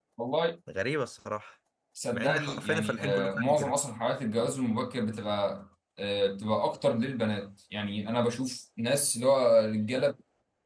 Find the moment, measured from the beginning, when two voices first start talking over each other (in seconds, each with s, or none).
2.1 s